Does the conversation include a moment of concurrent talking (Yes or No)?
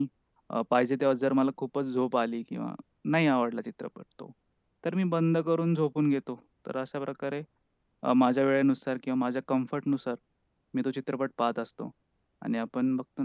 No